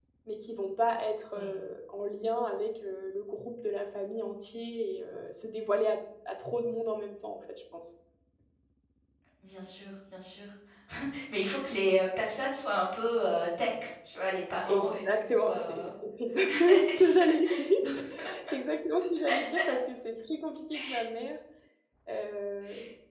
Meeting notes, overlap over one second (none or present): present